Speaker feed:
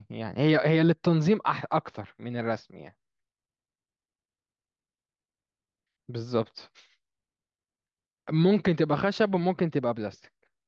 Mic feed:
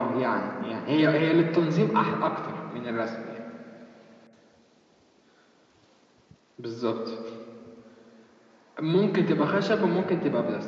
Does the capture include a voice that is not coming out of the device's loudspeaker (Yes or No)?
No